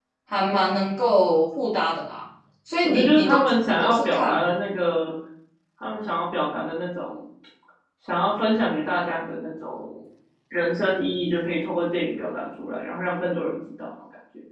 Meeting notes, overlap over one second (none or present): present